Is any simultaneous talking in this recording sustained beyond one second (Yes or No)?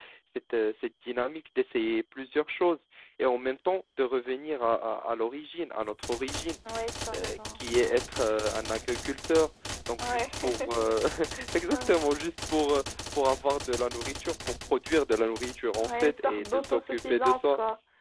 Yes